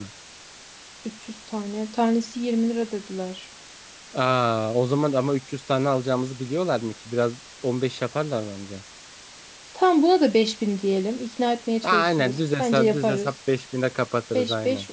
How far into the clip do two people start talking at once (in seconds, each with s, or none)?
11.8 s